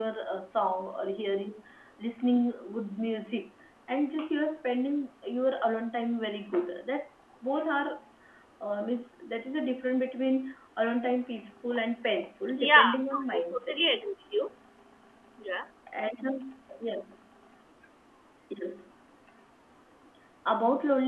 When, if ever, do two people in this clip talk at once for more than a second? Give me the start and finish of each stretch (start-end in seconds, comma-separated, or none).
12.6-13.8